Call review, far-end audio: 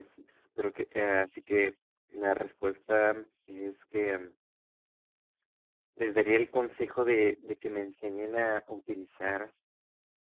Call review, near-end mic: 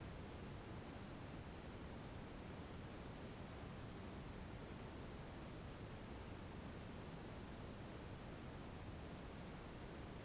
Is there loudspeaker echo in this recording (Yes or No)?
No